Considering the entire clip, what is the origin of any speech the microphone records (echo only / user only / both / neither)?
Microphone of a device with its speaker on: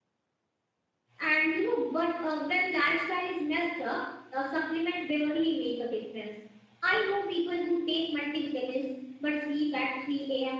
user only